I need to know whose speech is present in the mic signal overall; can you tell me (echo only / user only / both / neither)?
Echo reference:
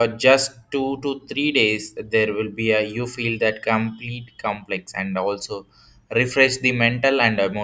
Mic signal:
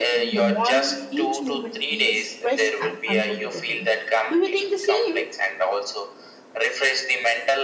both